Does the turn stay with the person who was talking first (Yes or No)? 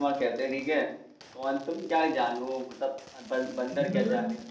No